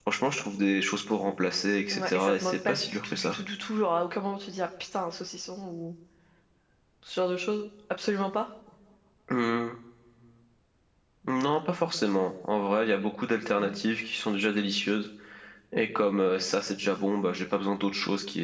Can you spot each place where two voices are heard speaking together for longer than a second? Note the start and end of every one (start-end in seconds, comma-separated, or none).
1.9-3.4